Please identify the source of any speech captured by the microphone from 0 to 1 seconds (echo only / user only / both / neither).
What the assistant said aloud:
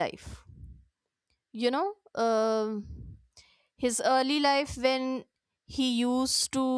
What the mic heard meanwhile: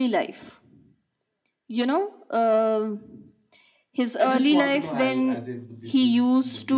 echo only